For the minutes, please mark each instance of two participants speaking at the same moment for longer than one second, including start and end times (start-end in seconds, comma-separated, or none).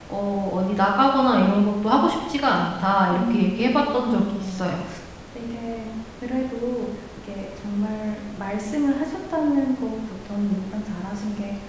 3.1-4.8